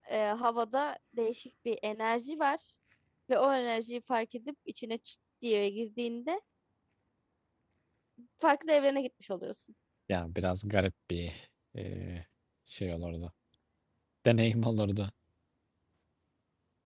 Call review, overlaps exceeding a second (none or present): none